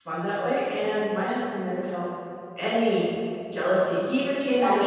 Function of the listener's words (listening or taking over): listening